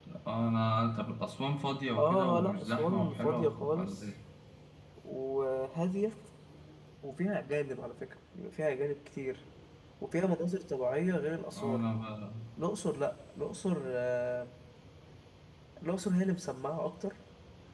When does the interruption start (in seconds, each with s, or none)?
2.0 s